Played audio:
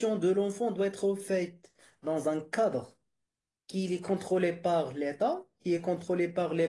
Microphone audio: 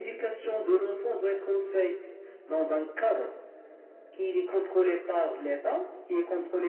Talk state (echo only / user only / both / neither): echo only